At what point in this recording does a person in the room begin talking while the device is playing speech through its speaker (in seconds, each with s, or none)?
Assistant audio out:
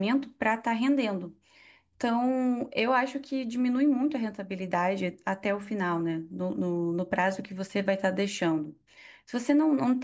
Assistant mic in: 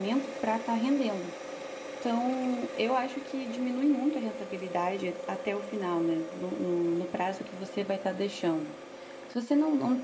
none